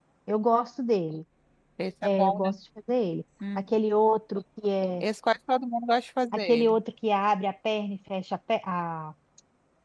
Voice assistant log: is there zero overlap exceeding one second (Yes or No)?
Yes